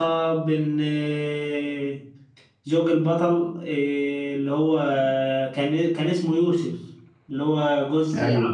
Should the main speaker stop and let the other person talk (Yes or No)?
Yes